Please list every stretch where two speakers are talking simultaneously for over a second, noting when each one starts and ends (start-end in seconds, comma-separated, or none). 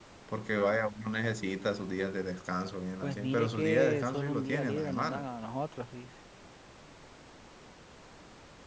3.0-5.3